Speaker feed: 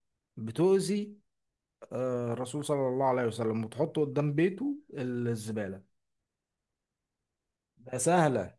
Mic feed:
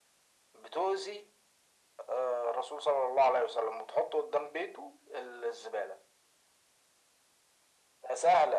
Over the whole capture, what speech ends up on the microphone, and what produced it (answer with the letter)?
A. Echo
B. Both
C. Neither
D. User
A